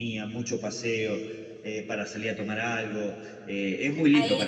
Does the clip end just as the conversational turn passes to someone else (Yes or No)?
Yes